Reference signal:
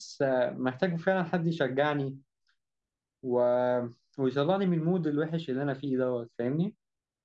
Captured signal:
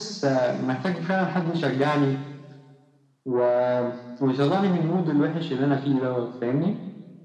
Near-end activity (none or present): none